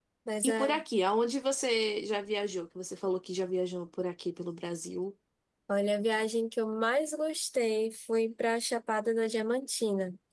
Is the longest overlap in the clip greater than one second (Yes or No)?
No